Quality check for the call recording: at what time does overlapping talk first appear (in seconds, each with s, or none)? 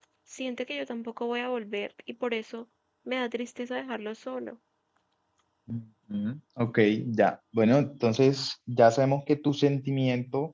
none